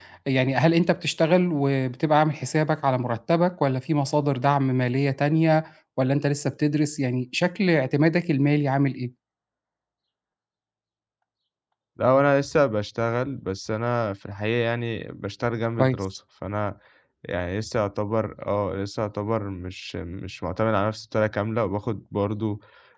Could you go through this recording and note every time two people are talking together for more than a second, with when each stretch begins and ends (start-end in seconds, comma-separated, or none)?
none